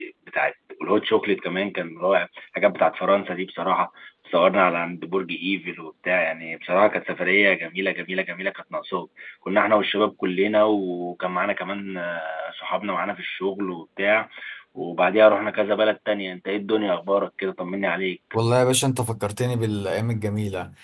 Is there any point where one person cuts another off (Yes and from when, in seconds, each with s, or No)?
No